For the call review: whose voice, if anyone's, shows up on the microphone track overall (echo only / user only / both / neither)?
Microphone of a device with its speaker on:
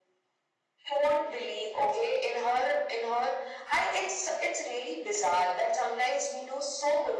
echo only